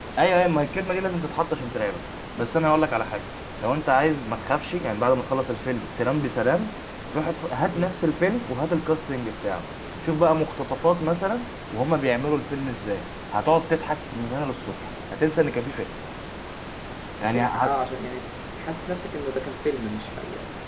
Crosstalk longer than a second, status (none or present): none